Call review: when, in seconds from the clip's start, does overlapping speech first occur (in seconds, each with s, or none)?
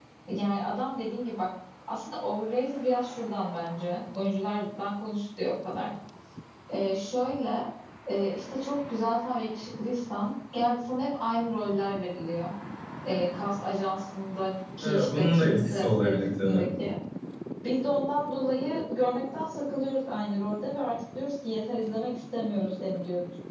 14.8 s